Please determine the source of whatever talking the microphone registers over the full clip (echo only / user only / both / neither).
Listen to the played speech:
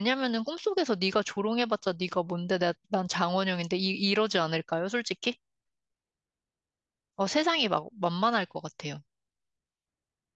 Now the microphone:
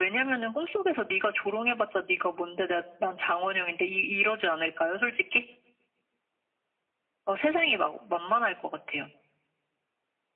echo only